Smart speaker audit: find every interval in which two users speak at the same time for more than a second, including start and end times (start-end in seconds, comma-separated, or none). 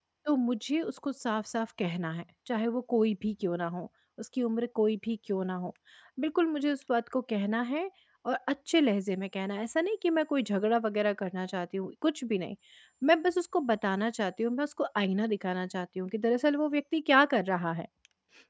none